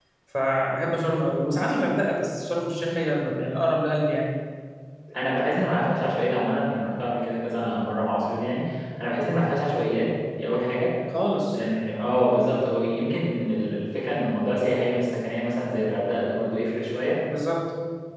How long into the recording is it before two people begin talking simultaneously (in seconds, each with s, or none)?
none